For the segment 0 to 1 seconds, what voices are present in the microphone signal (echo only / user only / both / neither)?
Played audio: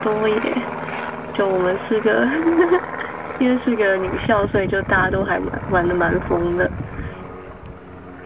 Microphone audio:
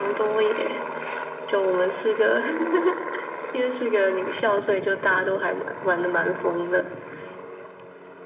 echo only